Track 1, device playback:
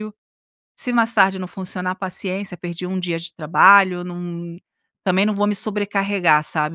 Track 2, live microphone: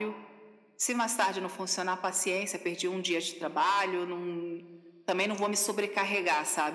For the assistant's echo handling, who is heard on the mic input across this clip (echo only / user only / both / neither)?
echo only